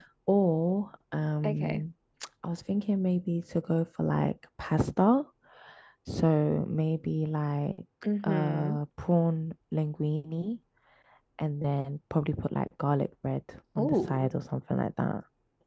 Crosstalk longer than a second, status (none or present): none